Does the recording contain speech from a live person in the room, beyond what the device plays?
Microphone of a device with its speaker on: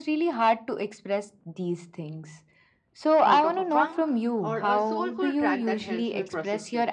Yes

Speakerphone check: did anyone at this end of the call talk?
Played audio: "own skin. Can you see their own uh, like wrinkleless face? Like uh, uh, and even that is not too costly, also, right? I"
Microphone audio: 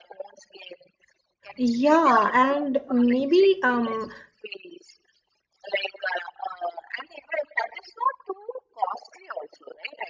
Yes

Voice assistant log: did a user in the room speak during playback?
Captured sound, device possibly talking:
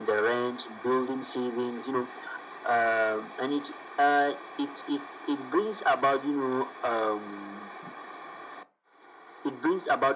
No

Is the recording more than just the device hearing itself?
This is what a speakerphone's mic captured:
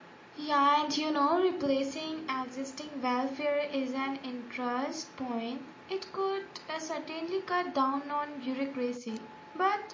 Yes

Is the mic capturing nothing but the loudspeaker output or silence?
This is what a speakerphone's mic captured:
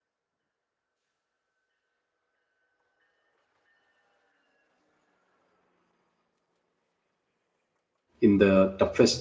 No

